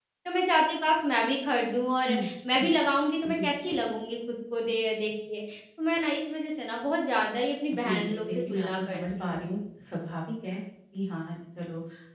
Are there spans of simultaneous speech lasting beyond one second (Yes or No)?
Yes